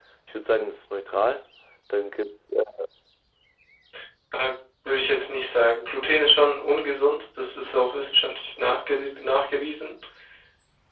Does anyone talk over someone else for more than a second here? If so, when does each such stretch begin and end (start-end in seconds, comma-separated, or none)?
none